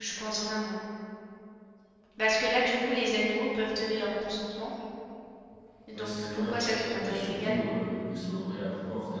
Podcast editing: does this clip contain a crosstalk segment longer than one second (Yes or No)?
Yes